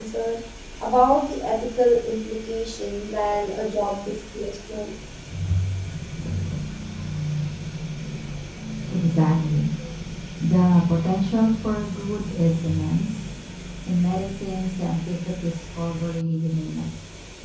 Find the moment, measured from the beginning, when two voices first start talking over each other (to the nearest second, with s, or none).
none